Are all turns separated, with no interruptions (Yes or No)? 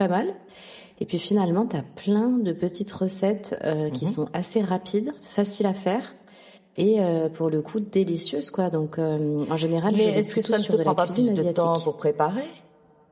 No